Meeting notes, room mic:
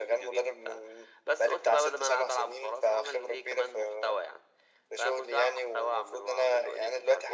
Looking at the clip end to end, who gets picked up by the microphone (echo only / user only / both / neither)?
echo only